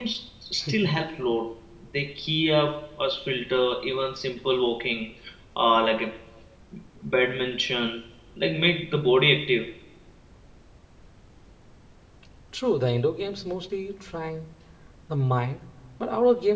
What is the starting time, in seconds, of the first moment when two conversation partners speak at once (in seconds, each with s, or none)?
none